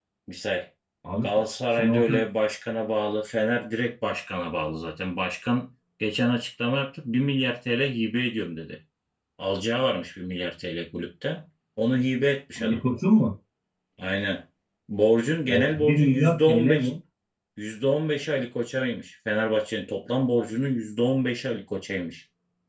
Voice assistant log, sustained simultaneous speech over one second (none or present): present